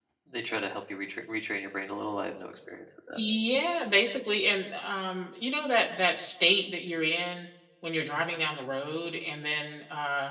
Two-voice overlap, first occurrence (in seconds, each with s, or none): none